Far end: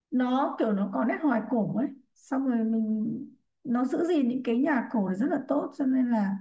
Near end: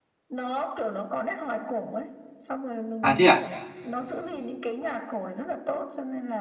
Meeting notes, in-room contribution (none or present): present